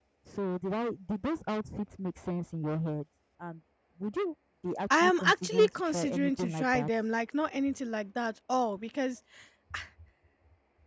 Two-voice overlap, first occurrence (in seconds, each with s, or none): 4.9 s